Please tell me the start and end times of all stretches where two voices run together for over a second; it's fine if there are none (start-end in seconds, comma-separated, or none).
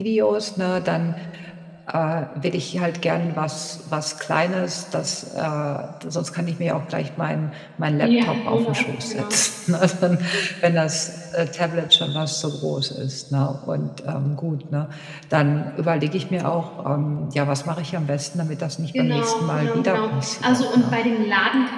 8.0-9.4, 19.0-21.0